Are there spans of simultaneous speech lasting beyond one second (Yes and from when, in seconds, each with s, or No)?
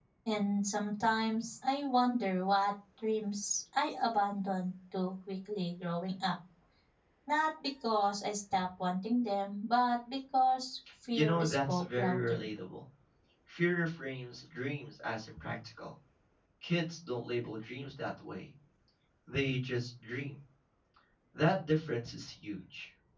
Yes, from 11.1 s